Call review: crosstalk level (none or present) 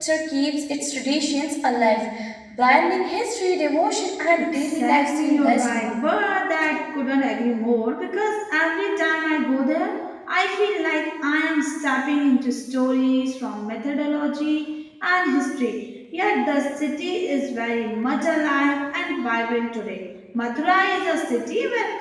present